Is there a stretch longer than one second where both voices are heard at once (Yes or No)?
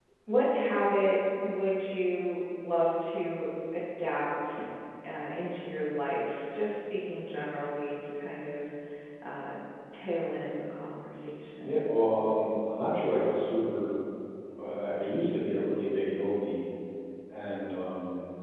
No